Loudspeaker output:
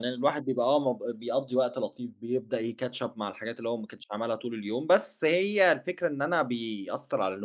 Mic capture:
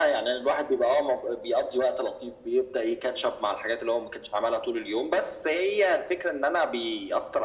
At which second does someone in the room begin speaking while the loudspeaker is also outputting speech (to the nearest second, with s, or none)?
none